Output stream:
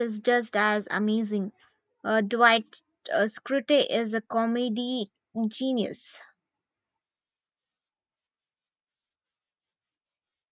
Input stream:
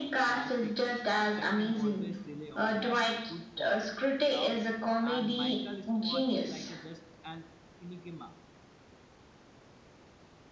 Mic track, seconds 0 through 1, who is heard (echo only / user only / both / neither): both